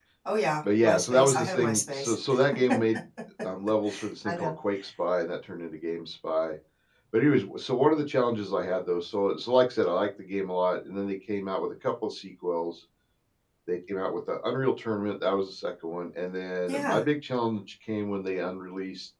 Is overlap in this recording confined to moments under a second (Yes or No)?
No